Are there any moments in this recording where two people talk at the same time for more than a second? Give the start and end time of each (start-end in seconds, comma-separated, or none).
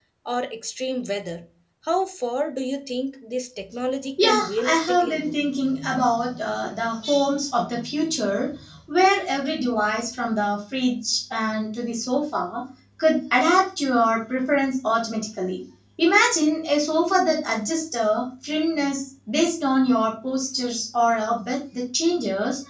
4.2-5.4